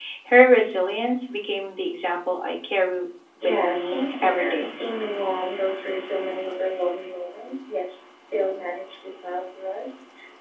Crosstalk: present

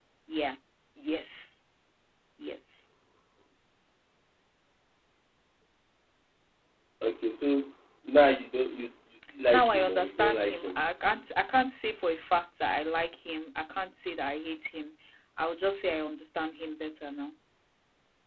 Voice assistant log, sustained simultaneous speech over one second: present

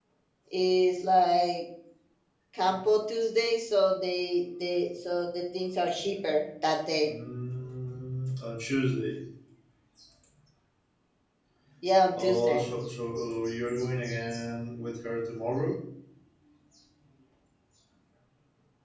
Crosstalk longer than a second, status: none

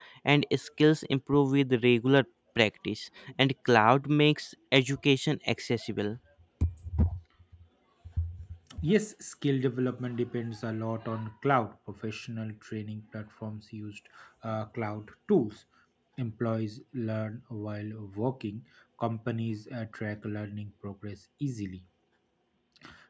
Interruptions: none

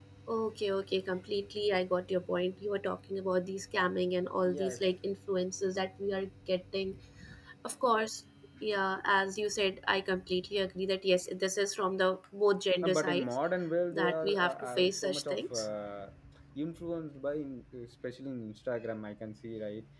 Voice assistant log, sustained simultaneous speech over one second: present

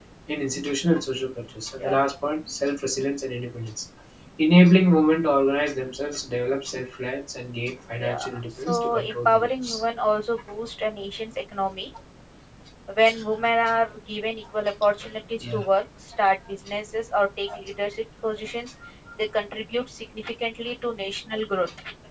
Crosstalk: present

